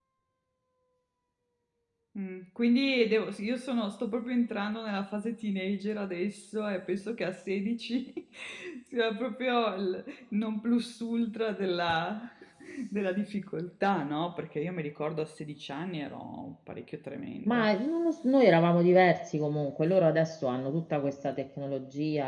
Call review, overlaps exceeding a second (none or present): none